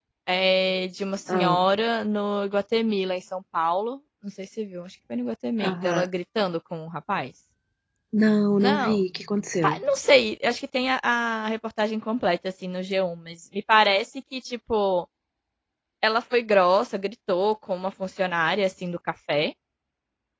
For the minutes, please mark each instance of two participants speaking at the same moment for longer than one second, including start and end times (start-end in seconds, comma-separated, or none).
none